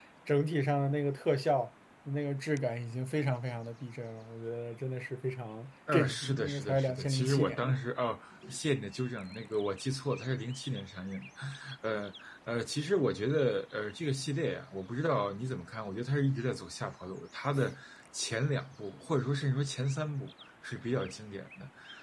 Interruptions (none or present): present